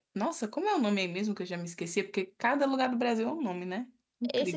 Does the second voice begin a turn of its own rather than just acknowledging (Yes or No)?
Yes